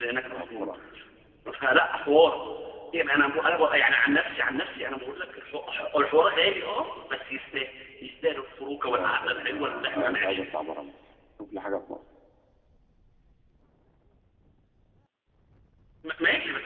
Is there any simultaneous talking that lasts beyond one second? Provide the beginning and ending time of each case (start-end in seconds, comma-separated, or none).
8.9-10.4